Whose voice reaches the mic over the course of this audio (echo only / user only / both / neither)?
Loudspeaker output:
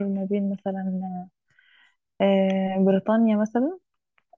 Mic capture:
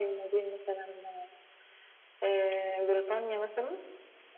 echo only